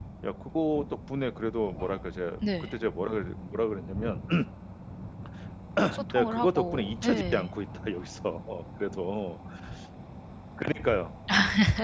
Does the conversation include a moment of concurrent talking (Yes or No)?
Yes